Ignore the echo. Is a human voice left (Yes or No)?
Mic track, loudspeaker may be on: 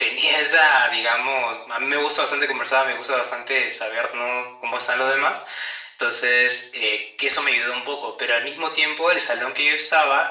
No